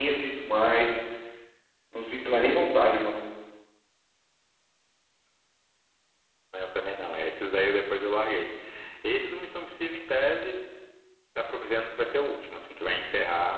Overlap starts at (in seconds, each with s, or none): none